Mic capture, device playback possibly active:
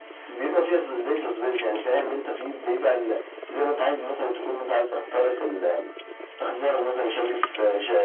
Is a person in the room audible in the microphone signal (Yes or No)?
No